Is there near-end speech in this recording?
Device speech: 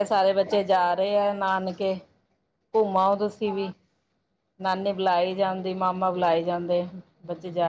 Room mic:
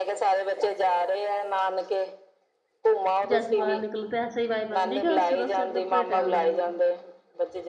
Yes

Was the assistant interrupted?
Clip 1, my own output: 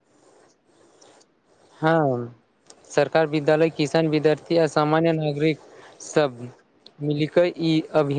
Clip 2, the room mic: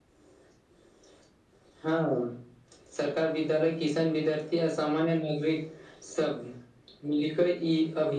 No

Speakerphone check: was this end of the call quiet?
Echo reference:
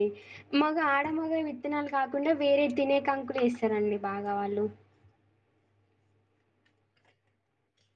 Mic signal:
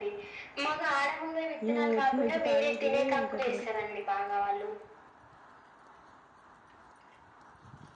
No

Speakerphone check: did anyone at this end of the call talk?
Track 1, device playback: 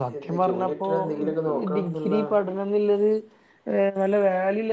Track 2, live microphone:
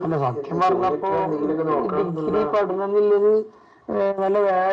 No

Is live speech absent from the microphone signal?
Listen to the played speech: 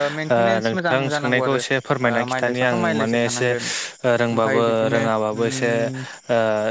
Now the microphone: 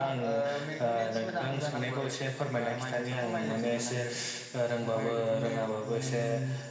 Yes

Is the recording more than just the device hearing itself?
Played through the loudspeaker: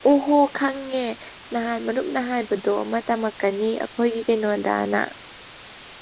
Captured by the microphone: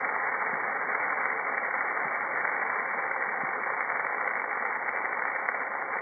No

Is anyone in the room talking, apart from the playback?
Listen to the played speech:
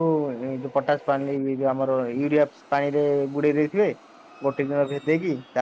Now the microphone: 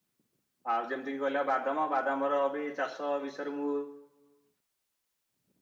Yes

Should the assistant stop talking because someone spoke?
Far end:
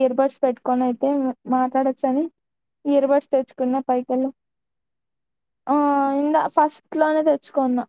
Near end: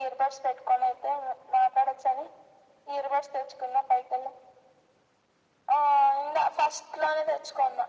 No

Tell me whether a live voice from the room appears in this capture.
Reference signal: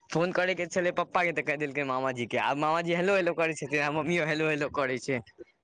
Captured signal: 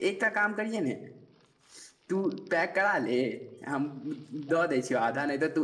Yes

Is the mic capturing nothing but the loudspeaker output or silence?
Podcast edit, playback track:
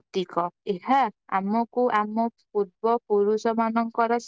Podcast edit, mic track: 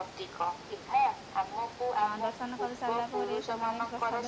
No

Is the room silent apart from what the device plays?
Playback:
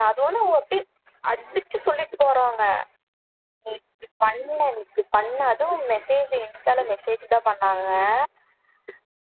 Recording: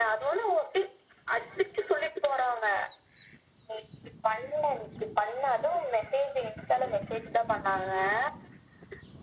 Yes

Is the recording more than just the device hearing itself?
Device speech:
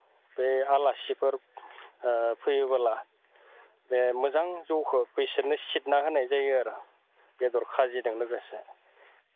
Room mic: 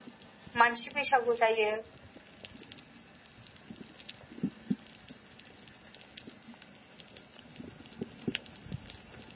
Yes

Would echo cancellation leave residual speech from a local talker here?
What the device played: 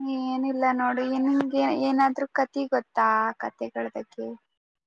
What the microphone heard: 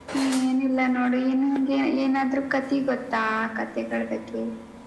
No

